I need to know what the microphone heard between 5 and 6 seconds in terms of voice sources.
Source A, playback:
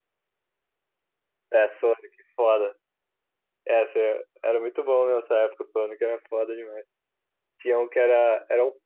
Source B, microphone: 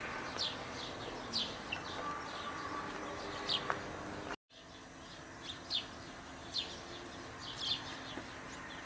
neither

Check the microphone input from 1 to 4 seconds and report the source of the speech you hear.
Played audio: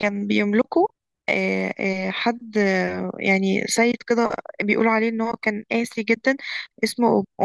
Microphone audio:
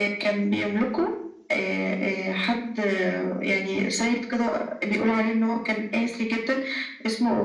echo only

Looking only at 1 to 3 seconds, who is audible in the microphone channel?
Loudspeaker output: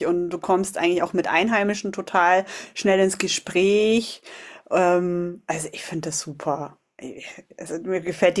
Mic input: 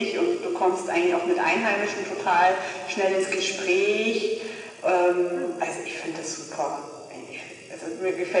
echo only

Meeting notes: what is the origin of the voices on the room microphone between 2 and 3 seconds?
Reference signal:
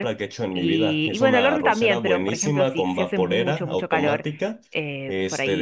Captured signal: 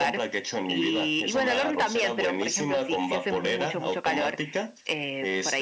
echo only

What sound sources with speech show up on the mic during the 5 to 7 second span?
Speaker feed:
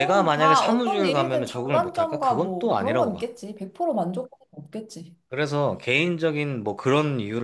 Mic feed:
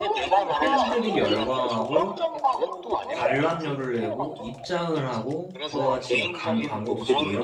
both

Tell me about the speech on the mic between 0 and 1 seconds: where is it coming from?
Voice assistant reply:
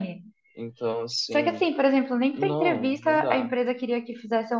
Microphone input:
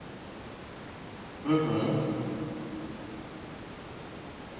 neither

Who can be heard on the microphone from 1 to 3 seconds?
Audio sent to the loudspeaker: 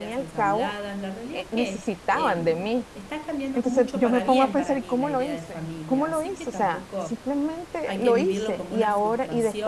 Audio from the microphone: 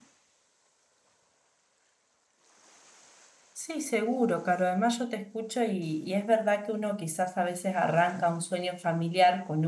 neither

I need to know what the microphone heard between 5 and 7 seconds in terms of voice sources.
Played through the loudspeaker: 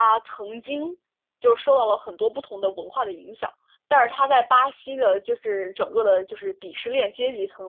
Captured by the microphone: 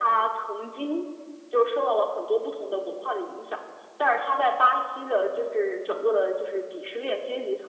echo only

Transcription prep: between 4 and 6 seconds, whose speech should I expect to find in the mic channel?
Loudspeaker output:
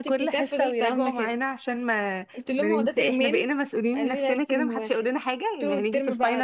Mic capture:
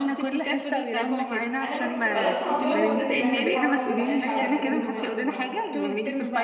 both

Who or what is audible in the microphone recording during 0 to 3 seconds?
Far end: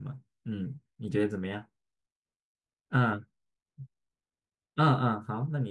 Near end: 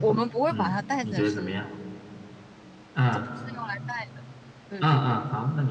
both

